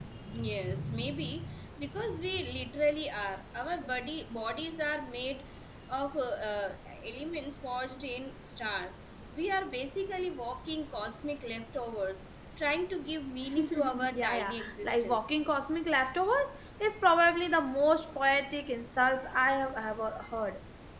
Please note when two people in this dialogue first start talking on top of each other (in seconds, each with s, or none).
13.5 s